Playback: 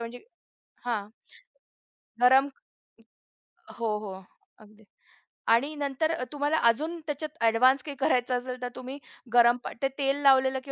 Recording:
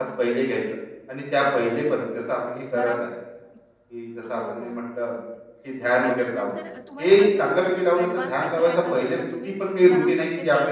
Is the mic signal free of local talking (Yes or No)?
No